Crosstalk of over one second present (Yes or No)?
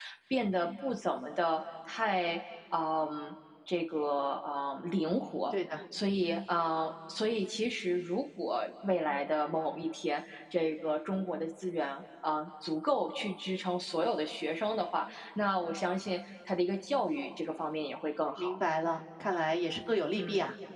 No